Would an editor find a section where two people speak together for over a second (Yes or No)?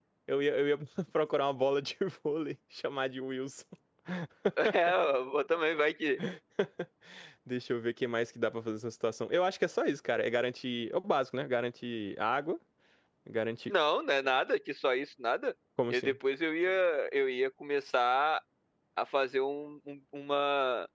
No